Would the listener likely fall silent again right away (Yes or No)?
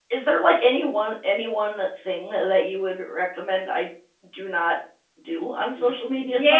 No